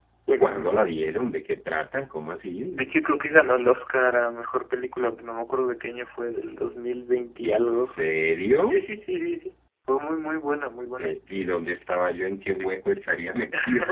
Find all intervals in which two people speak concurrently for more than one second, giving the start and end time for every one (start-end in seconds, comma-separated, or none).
none